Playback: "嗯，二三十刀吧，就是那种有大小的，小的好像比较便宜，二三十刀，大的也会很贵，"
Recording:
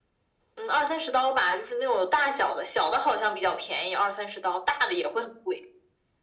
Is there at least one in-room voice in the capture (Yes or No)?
No